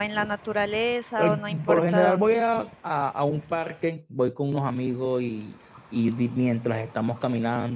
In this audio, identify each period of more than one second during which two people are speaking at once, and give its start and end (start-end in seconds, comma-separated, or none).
1.2-2.4